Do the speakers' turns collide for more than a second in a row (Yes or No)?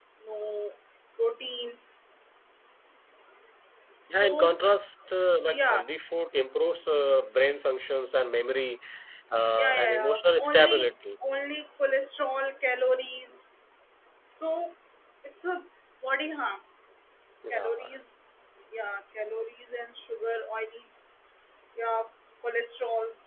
Yes